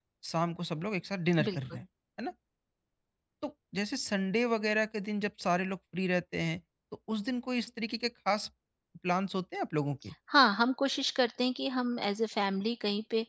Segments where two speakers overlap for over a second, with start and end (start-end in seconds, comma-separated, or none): none